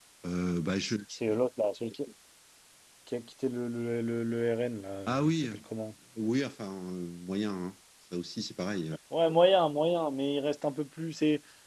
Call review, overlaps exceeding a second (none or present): none